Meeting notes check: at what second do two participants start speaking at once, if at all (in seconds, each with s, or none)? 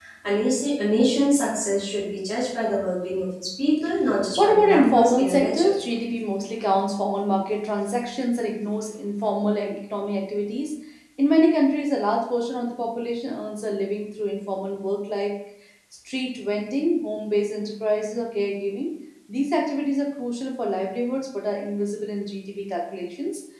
4.4 s